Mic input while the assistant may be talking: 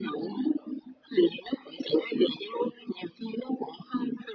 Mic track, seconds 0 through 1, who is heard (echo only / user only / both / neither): echo only